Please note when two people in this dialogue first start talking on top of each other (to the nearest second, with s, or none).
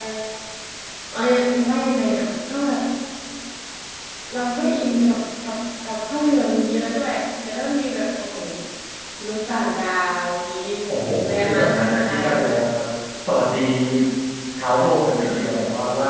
11 s